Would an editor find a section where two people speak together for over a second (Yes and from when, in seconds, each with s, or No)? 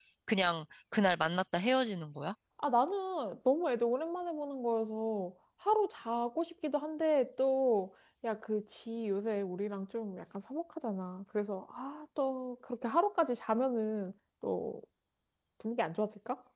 No